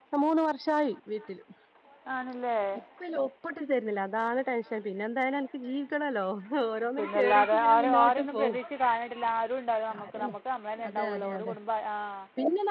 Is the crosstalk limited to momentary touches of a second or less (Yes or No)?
No